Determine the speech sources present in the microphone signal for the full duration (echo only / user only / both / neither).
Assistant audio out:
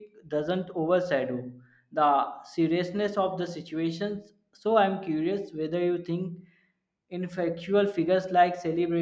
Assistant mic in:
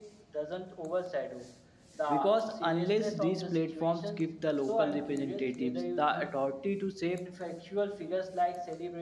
both